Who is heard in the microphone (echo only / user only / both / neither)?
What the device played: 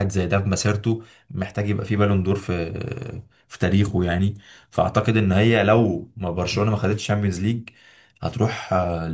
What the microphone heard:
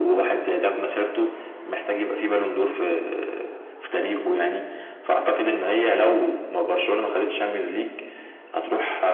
echo only